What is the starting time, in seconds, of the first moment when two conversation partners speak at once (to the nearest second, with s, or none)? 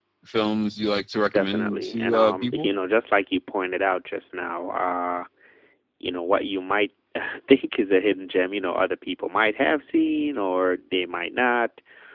1 s